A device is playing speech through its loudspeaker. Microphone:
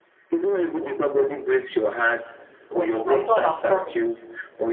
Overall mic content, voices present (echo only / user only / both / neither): both